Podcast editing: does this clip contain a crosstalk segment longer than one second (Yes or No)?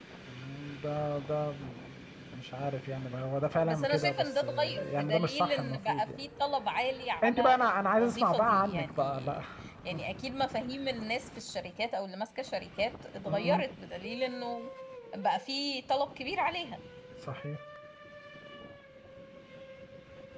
Yes